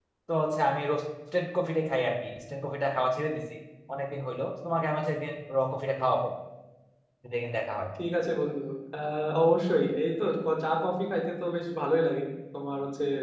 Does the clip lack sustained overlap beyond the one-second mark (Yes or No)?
Yes